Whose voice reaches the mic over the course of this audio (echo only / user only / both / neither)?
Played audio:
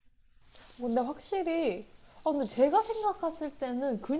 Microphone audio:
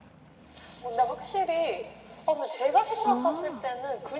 both